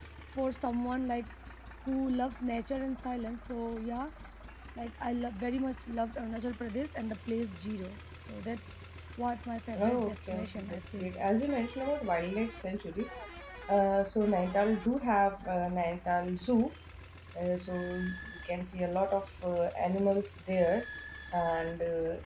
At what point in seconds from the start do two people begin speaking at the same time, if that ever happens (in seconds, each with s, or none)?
9.8 s